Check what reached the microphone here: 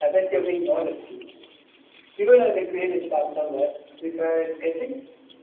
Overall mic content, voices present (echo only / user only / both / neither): echo only